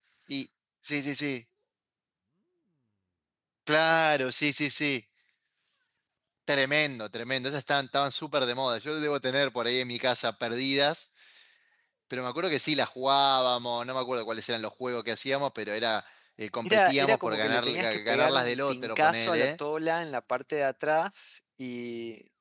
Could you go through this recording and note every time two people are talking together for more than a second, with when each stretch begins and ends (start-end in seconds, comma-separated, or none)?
16.6-19.5